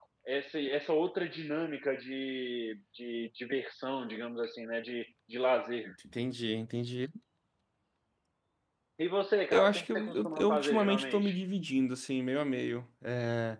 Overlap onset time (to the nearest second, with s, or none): 10 s